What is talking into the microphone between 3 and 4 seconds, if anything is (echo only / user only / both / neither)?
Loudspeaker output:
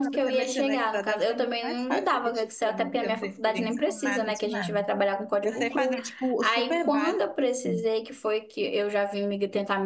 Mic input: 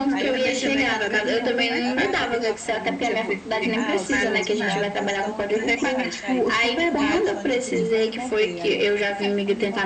both